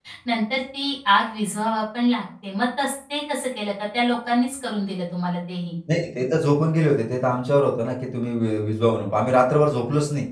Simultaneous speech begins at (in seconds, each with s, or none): none